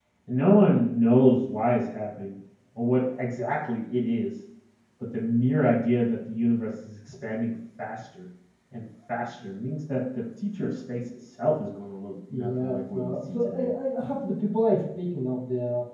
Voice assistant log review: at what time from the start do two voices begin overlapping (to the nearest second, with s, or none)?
12 s